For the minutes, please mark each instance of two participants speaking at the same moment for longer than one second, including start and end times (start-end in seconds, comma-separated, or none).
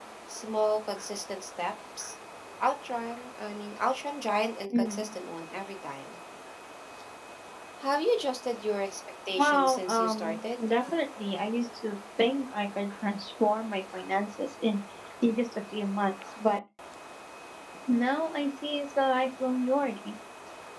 9.4-10.6